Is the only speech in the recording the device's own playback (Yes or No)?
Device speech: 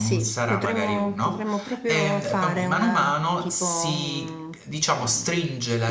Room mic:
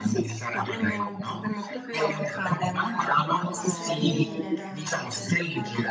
No